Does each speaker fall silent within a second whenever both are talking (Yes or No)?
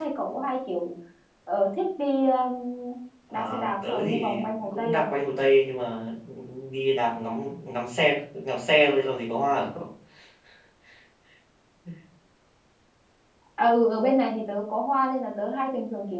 No